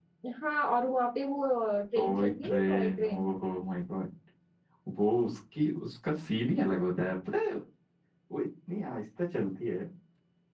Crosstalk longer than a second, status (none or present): present